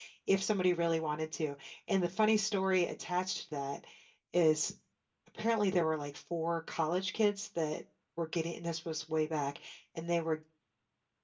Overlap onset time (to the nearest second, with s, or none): none